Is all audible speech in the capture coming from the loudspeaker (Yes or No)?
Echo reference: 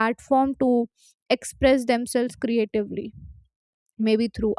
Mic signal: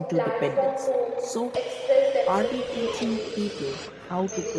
No